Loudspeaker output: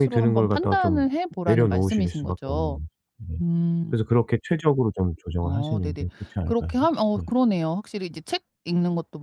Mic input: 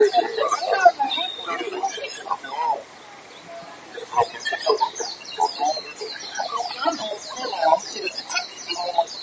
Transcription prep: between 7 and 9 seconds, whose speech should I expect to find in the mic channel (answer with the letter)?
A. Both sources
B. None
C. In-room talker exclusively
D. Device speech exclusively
D